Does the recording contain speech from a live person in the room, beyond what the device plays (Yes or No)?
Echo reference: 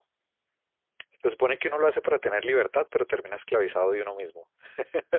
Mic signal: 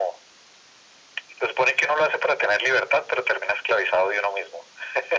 No